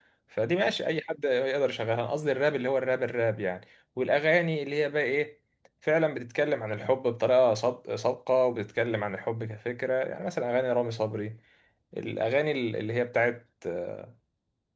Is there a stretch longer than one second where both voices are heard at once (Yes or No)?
No